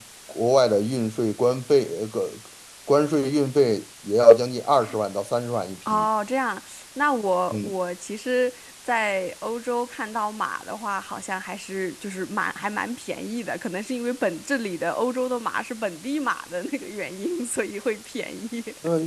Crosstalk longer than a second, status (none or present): none